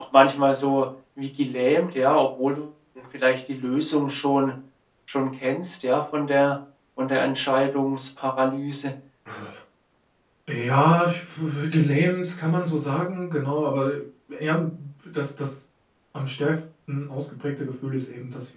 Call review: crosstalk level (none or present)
none